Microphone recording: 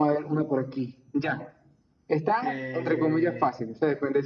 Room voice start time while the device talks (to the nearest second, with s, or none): 2 s